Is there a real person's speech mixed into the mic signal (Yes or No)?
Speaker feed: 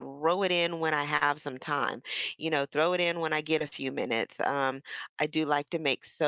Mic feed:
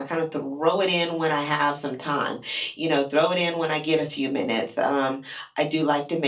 No